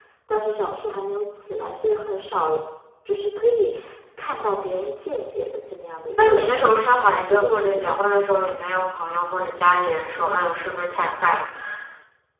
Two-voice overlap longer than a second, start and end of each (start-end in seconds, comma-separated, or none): 6.2-8.0